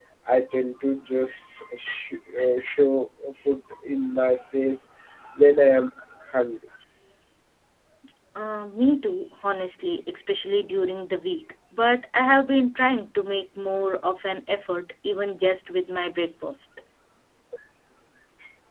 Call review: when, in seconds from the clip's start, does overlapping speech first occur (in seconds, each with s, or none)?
none